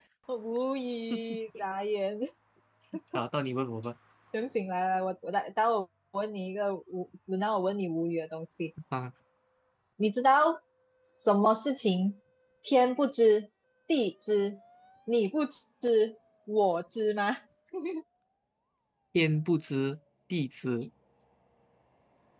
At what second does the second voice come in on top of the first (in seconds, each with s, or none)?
none